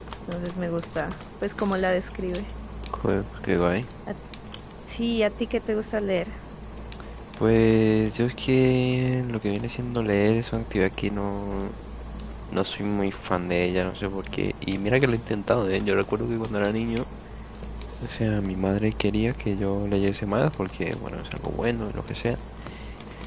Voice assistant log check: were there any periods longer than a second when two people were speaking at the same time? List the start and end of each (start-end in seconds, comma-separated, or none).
none